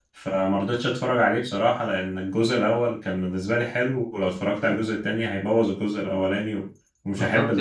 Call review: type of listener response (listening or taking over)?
taking over